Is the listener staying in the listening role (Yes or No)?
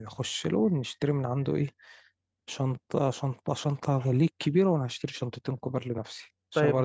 No